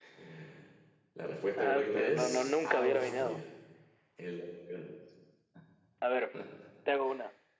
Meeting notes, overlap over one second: present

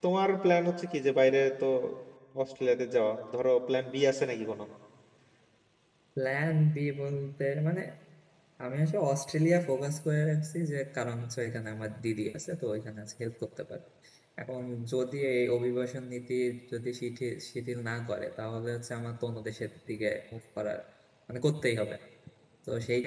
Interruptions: none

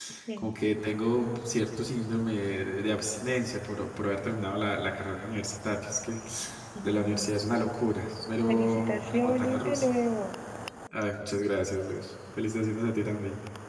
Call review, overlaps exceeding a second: present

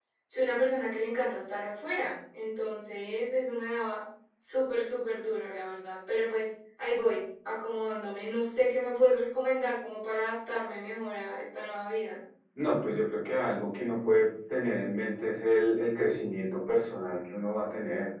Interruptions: none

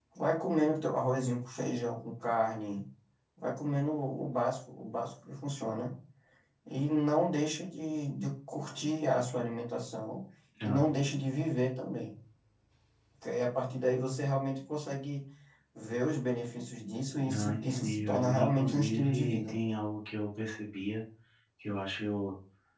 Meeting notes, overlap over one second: present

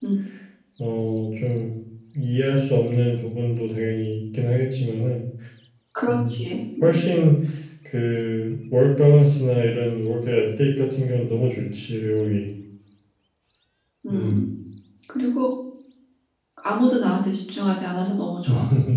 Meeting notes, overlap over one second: none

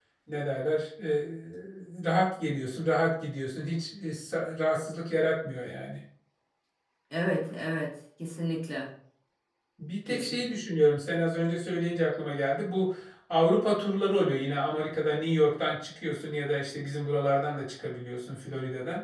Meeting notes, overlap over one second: none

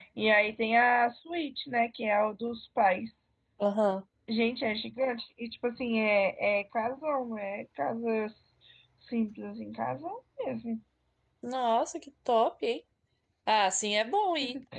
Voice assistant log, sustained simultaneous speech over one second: none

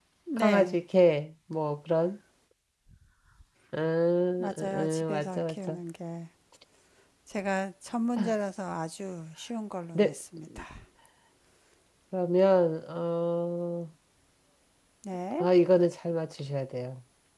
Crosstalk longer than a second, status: present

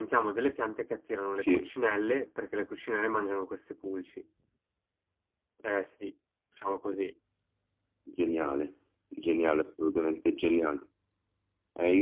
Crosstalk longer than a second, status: none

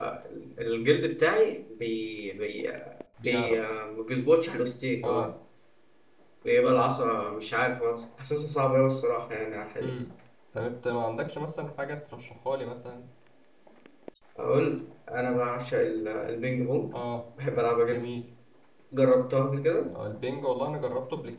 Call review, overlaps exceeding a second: none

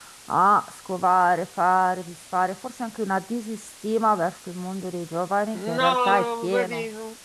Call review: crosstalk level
present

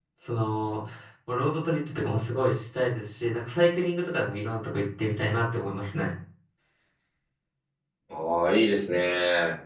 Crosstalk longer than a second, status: none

